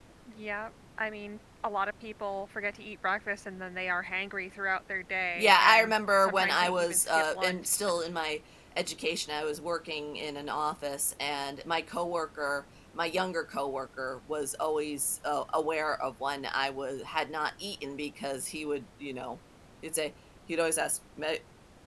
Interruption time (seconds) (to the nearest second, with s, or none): 5 s